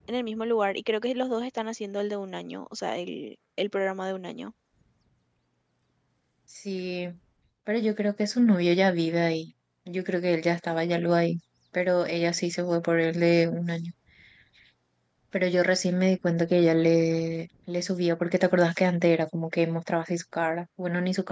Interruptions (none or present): none